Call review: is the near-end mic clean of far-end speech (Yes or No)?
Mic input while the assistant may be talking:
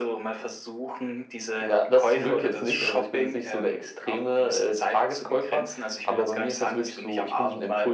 No